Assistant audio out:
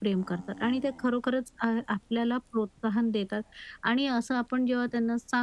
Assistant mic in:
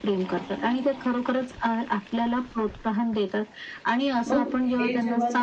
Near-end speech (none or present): present